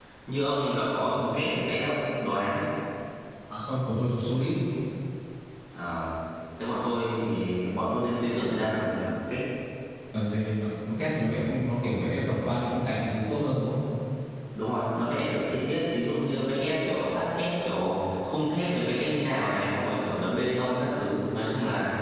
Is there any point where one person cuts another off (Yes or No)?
No